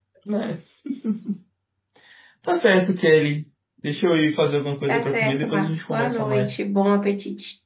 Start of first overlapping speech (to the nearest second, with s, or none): 5 s